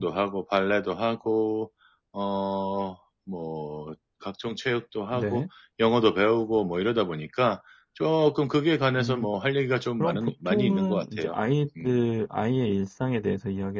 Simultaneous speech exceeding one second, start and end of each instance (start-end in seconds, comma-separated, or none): 10.0-11.3